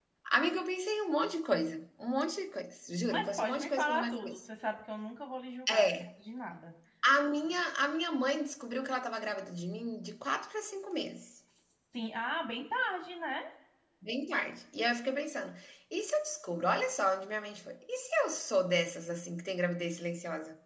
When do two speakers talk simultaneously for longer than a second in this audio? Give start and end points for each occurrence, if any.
3.1-4.4

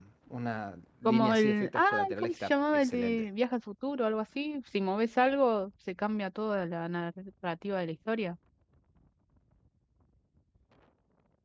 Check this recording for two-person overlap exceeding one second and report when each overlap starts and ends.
1.0-3.2

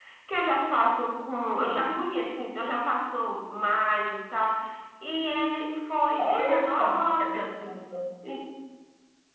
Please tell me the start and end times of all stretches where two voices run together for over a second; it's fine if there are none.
6.2-7.5

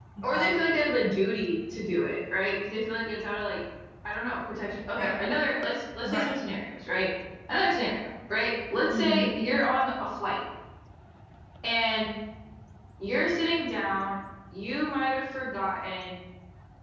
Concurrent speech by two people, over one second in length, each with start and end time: none

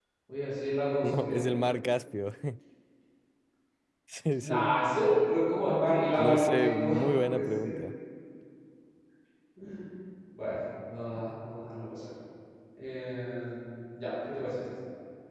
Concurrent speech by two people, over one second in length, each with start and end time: 6.2-7.8

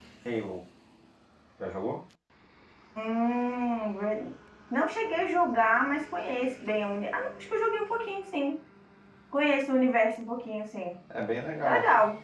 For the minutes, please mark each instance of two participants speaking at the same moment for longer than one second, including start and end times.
none

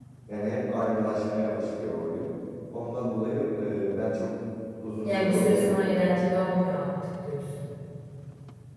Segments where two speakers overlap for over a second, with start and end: 5.0-6.2

